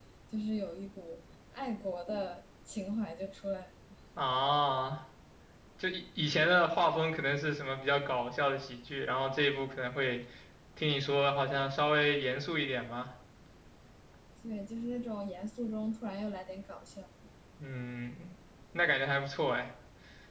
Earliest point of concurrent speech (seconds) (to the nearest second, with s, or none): none